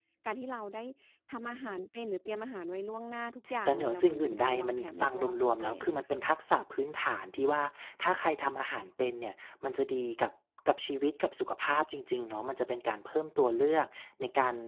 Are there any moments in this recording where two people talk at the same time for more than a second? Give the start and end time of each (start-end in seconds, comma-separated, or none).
3.7-5.2